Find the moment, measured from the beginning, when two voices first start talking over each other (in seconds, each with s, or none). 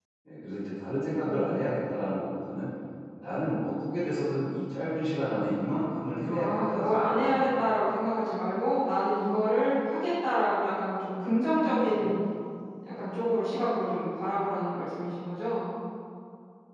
6.2 s